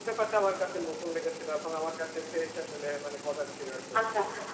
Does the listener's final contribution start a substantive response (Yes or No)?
Yes